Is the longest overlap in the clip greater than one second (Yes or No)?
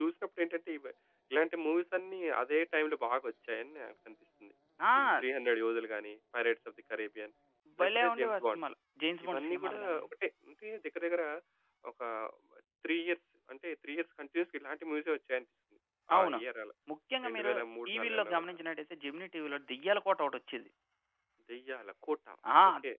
Yes